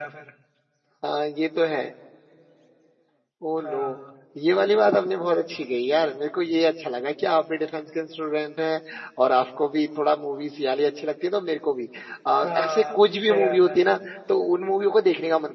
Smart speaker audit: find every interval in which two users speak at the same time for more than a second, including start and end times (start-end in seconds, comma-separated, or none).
12.4-13.7